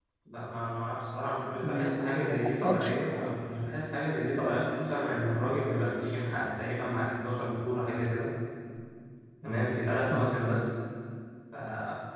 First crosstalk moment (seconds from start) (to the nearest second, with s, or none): 2 s